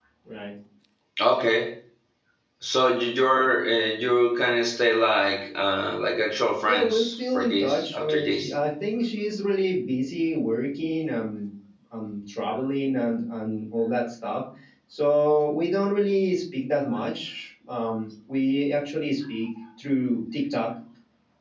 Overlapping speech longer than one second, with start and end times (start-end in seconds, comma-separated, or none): 6.6-8.5